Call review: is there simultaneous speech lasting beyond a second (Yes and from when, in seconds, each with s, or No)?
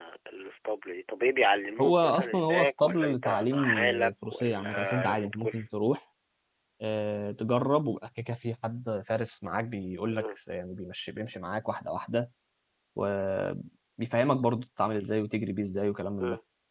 Yes, from 1.8 s